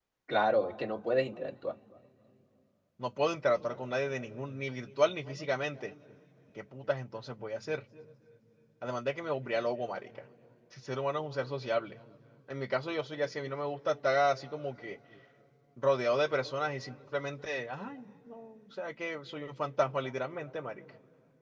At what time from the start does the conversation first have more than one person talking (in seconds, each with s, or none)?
none